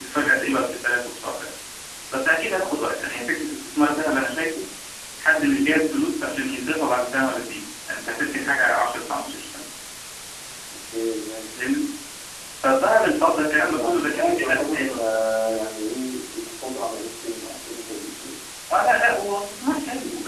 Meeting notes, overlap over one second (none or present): present